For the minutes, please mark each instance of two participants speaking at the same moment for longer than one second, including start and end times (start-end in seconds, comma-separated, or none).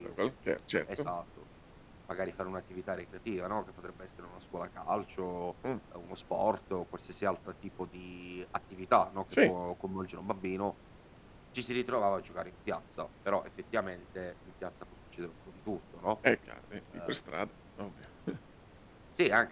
none